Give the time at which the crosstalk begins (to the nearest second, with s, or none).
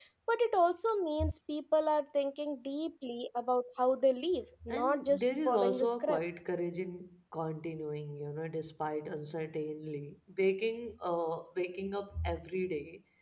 5 s